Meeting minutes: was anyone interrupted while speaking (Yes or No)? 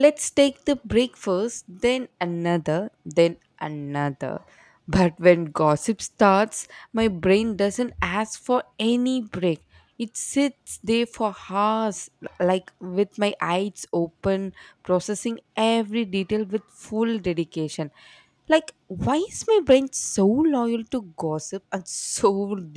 No